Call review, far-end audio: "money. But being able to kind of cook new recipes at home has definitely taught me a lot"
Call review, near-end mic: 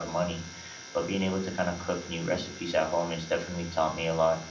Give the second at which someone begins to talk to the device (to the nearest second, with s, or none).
none